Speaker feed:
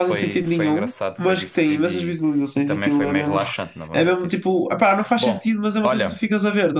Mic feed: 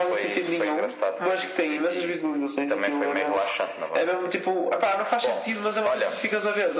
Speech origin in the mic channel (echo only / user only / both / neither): echo only